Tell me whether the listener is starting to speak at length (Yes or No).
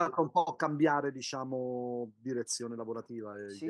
Yes